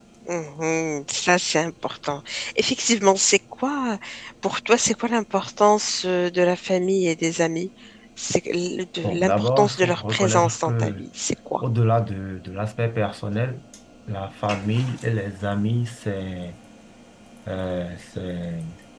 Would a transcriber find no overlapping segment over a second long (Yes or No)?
No